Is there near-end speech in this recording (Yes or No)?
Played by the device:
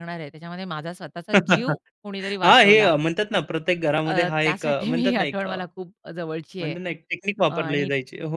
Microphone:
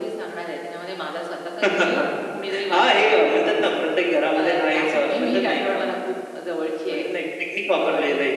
No